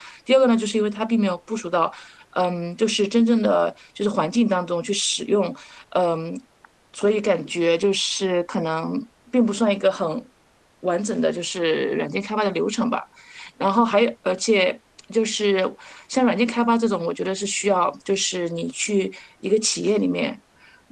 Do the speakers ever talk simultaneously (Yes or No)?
No